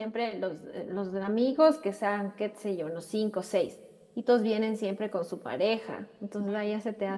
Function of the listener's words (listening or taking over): listening